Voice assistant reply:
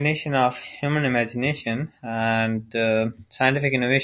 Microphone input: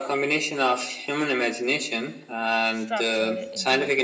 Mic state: both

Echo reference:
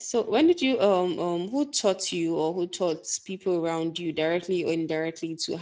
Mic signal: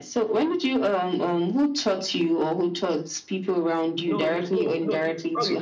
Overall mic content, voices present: both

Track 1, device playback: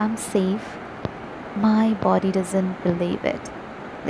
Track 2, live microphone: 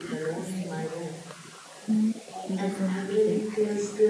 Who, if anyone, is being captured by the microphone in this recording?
both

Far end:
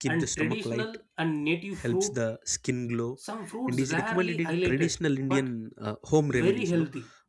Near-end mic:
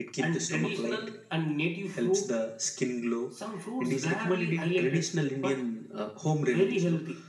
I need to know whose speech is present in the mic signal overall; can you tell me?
echo only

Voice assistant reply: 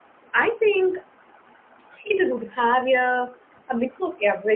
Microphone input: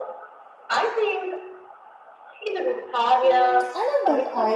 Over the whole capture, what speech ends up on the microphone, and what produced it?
both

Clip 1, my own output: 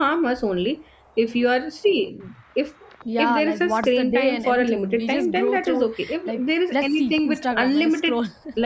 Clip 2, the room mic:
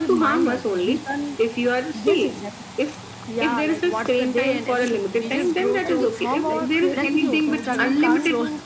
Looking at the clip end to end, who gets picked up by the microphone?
both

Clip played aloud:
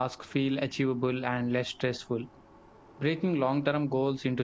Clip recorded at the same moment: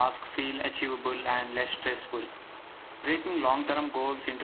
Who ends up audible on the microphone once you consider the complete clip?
echo only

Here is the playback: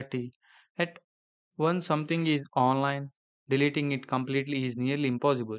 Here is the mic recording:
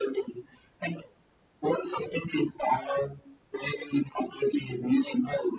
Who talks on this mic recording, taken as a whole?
echo only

